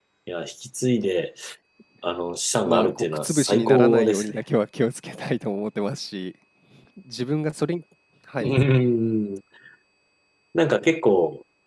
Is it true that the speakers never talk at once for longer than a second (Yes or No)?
No